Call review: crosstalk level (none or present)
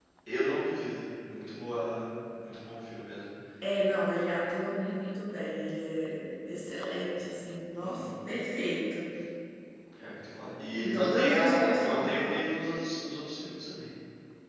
present